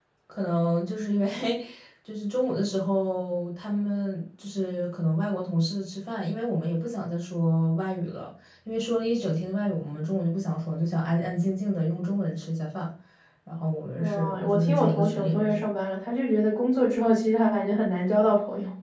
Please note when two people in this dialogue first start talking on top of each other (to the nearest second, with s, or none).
14 s